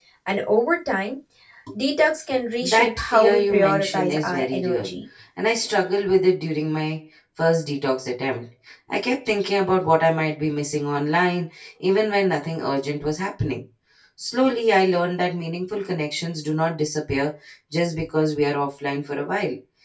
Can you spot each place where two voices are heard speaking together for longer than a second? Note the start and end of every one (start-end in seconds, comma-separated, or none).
2.6-4.9